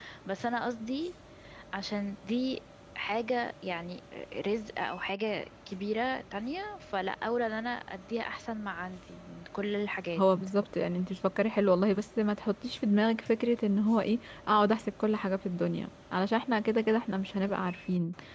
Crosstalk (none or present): none